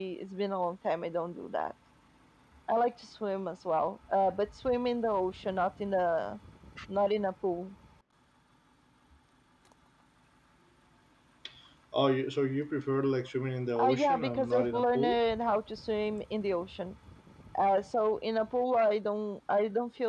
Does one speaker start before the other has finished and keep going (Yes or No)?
Yes